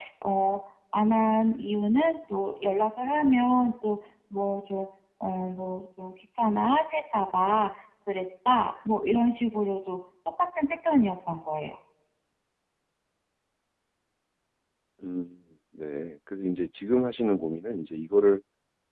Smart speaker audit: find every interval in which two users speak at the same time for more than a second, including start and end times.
none

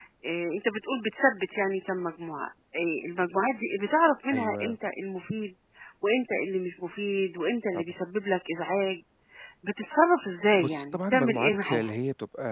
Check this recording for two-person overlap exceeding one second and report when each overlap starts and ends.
10.6-11.9

